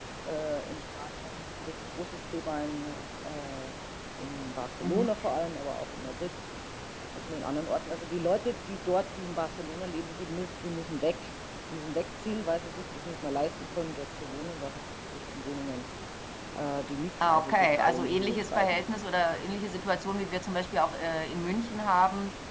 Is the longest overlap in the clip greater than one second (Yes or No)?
Yes